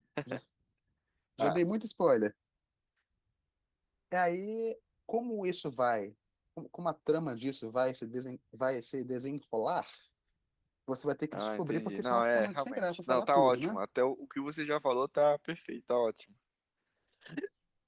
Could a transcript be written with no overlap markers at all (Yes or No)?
No